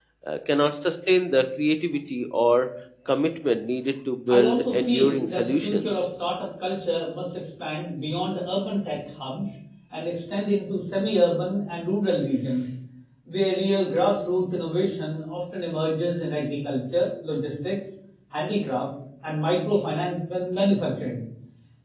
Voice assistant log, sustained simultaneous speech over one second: present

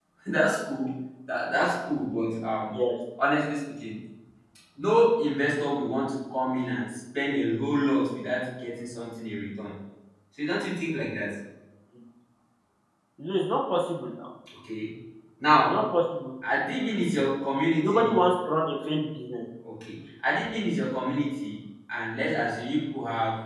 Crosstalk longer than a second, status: none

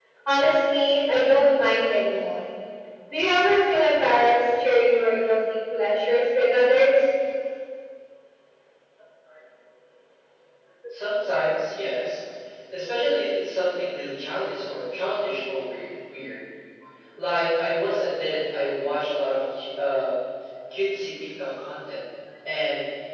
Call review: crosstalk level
none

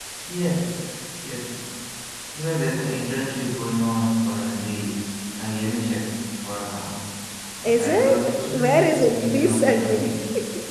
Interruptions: present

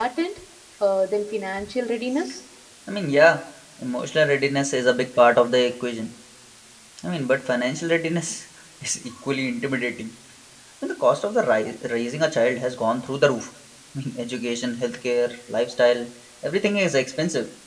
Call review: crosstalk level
none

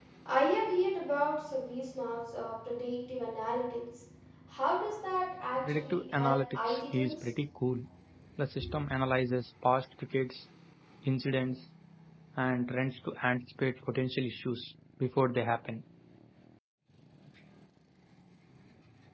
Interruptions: present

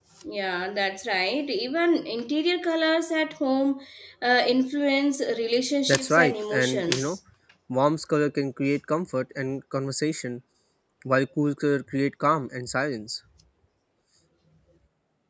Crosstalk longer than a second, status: present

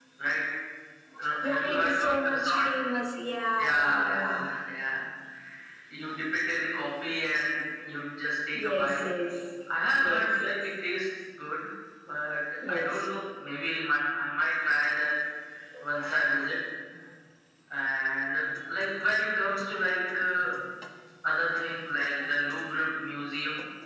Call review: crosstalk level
present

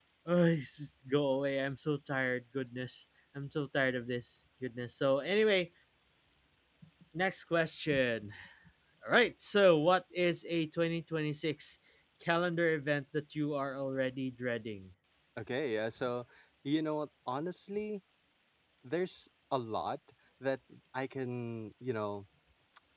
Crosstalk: none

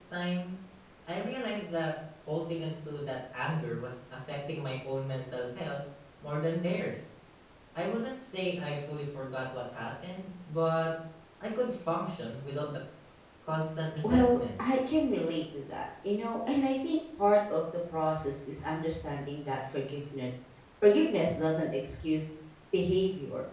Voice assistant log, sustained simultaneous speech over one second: none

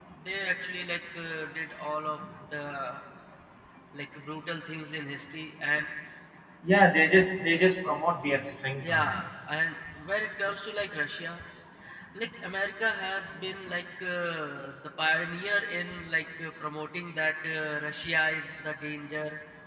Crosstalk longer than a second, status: none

